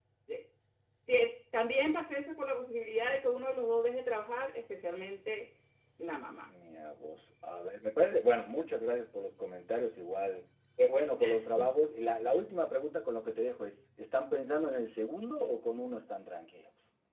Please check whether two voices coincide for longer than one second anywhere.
No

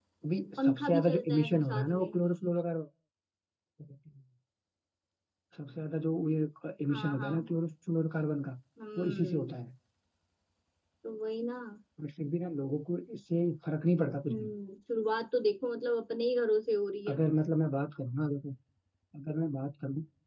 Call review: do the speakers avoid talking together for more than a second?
No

